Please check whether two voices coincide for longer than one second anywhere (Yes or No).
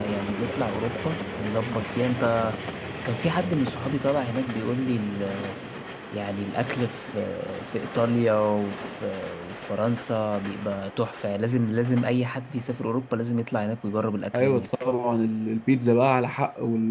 No